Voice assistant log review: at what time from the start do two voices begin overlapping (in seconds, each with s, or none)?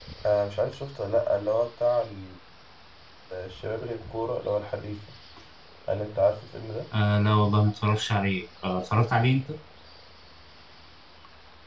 none